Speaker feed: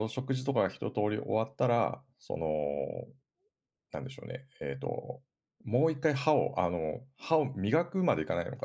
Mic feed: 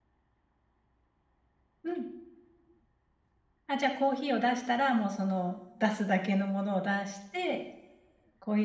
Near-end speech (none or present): present